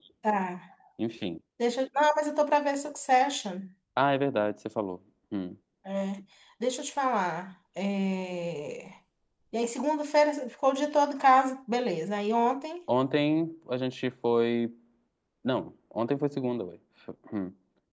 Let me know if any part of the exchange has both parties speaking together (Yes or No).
No